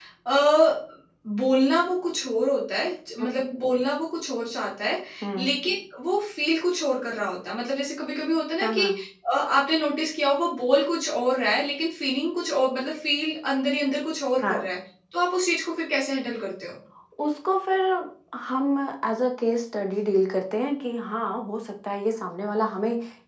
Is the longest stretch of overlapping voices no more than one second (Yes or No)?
Yes